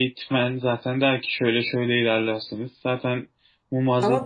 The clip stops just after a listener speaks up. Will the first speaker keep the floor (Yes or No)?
No